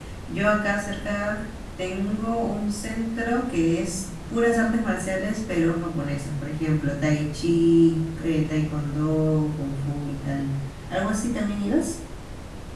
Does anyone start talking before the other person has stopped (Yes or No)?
No